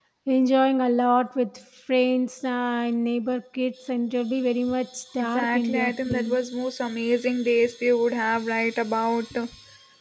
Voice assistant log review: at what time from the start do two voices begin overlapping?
5 s

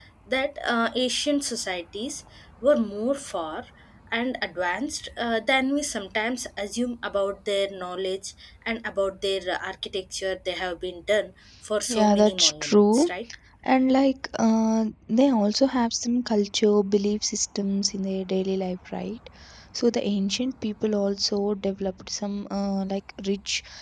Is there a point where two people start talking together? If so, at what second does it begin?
12 s

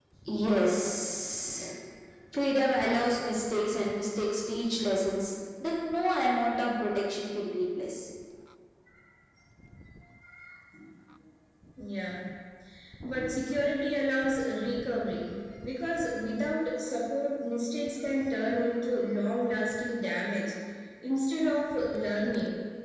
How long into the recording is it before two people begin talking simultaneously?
none

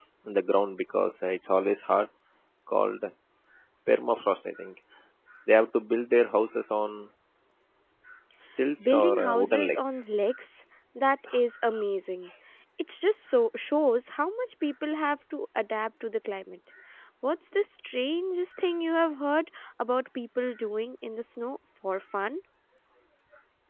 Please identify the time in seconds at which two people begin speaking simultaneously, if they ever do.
9 s

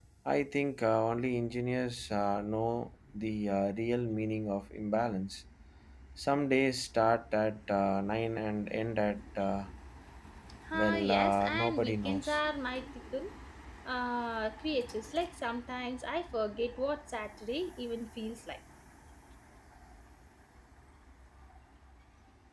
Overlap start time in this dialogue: 11 s

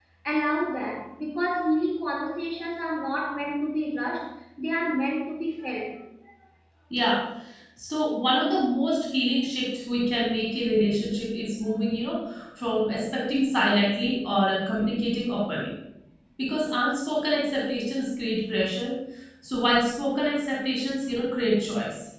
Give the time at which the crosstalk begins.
none

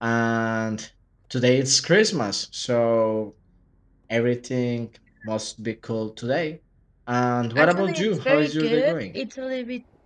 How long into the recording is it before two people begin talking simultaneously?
8 s

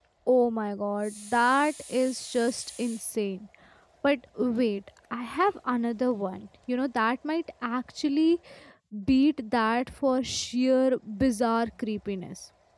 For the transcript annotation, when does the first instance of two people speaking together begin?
none

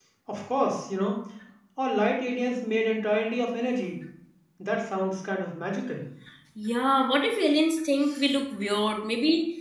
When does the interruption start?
none

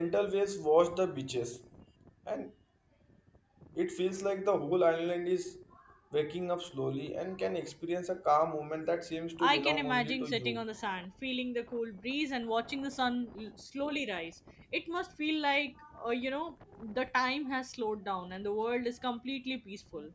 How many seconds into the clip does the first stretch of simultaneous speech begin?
9 s

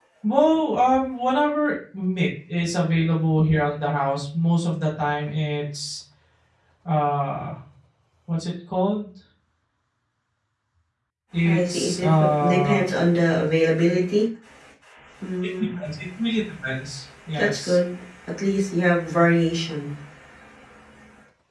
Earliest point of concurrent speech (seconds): 11 s

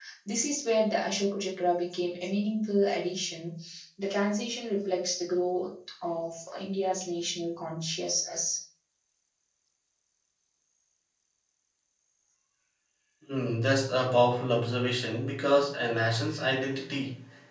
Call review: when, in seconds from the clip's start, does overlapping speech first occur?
none

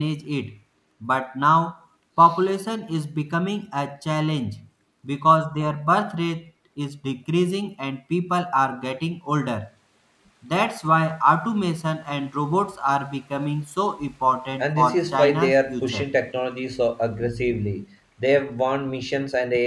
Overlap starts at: 15 s

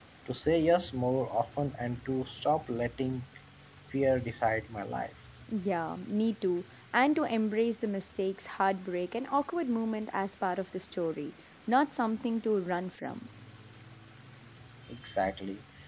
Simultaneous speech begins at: none

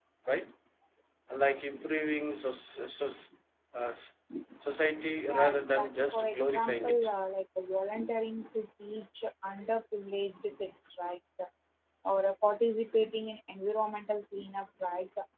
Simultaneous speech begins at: 5 s

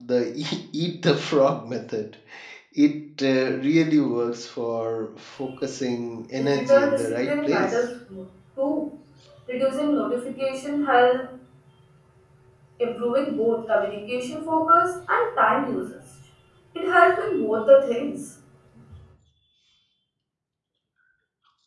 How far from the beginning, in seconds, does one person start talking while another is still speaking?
6 s

